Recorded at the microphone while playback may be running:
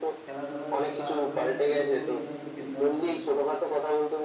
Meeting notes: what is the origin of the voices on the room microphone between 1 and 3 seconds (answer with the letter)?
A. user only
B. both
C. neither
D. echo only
B